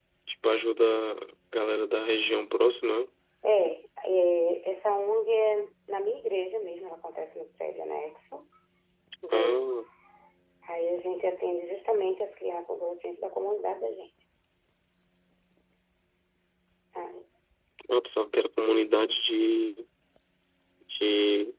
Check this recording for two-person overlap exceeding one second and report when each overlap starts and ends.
none

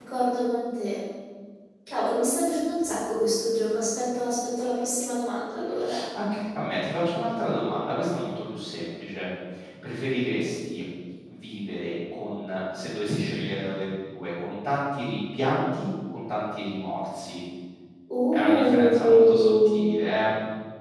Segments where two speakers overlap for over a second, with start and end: 18.3-19.9

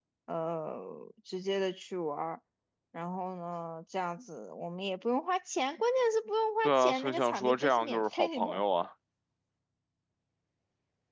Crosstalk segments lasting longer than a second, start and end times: 6.6-8.6

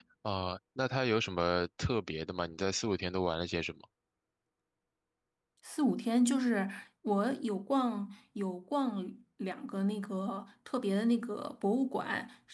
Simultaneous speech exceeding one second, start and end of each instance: none

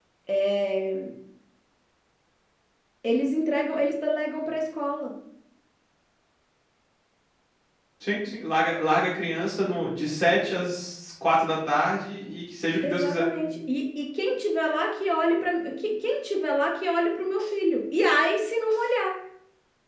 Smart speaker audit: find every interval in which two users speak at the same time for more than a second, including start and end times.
none

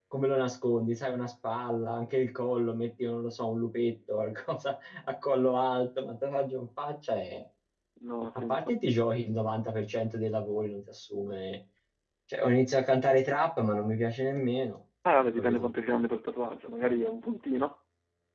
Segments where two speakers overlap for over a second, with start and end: none

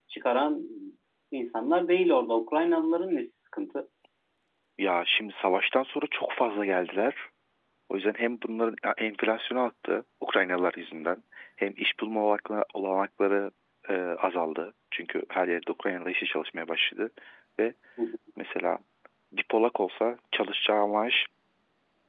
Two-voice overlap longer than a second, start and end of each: none

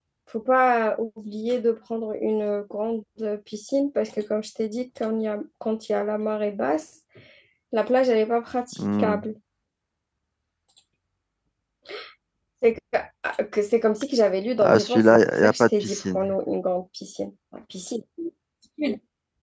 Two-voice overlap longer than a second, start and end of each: 14.6-16.3

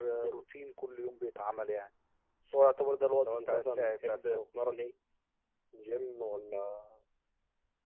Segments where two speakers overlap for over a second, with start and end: 3.2-4.4

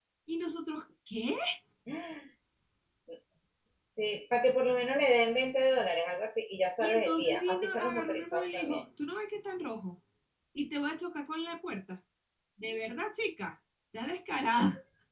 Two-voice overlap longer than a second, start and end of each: 6.8-8.8

